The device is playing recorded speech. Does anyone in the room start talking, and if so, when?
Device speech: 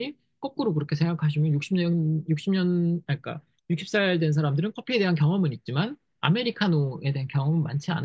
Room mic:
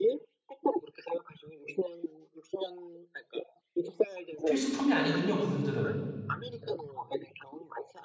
4.4 s

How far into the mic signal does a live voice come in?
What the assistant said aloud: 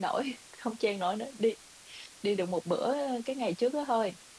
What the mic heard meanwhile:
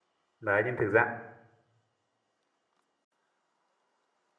0.4 s

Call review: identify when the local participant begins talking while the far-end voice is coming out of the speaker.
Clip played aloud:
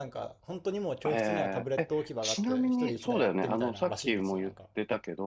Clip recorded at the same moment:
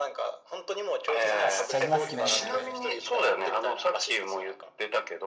1.2 s

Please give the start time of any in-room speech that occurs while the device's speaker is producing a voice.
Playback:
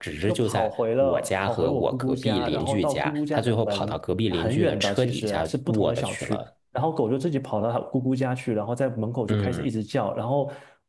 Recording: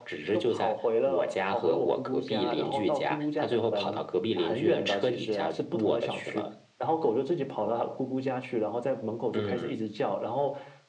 none

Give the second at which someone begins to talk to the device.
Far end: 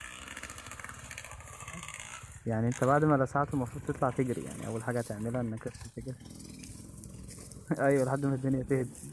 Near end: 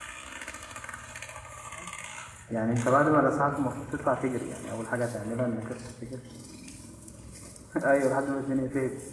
none

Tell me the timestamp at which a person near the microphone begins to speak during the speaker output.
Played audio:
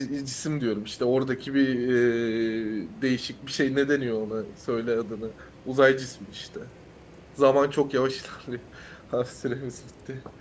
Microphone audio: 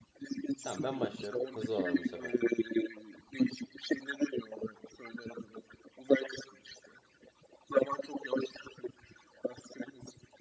0.6 s

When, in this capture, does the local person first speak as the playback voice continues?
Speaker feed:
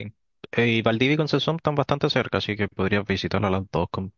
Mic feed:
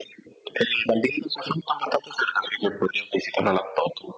none

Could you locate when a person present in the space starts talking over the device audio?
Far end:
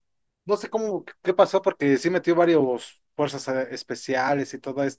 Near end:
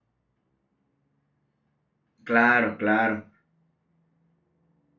2.2 s

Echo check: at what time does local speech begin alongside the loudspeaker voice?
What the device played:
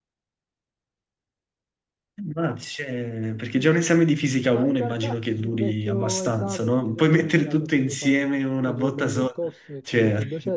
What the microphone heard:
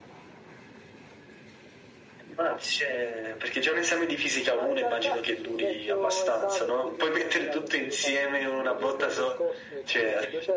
none

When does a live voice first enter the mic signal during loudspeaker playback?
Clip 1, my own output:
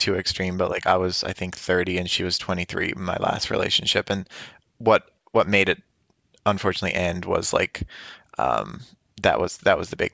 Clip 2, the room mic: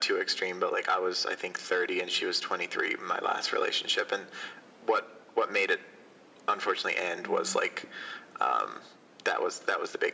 7.2 s

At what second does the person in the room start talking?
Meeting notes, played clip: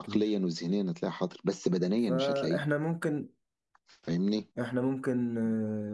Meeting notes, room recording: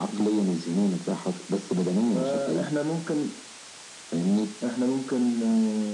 none

